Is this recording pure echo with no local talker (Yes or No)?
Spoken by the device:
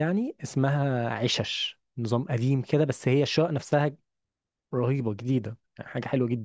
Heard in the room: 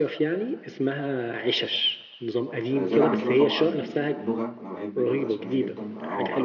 No